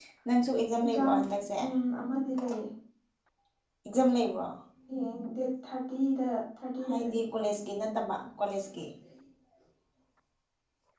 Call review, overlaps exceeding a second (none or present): none